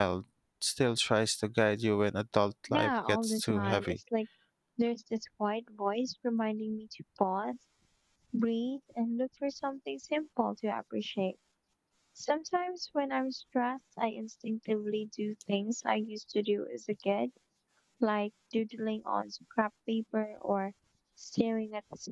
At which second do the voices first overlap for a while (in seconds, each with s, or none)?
2.7 s